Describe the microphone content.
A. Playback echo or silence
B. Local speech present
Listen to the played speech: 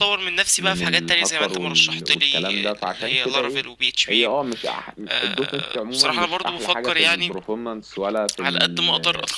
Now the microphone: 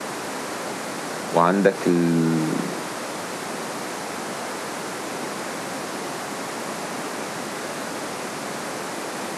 B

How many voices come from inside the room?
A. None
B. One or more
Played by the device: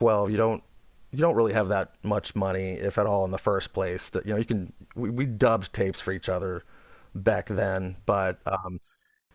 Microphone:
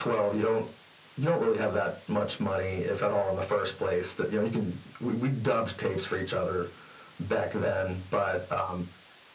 A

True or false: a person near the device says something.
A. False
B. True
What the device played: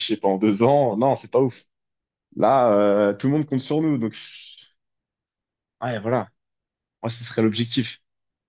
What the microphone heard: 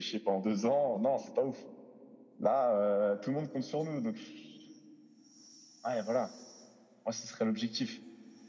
A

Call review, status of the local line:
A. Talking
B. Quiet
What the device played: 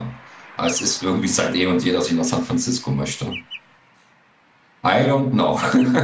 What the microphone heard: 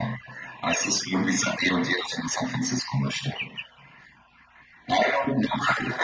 B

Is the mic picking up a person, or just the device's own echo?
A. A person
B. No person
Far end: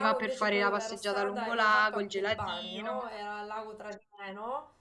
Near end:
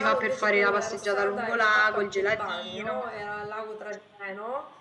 A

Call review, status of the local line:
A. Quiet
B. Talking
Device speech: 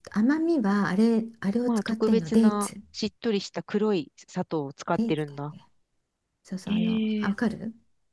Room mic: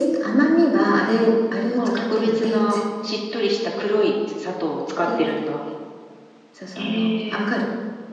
A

